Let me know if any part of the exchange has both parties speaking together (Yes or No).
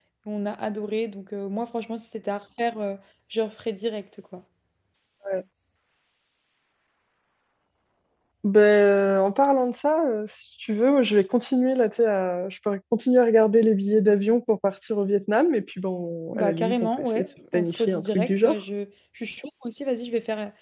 Yes